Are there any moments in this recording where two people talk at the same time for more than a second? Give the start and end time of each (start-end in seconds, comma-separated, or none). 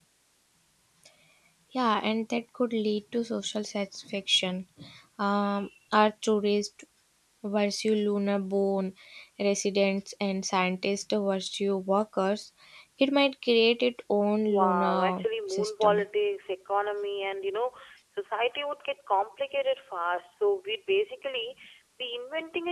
14.4-16.0